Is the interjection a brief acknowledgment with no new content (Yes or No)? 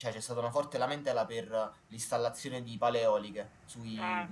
Yes